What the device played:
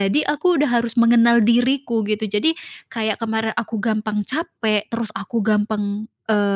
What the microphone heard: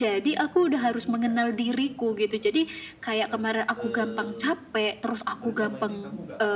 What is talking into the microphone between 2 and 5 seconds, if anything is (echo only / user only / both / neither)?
both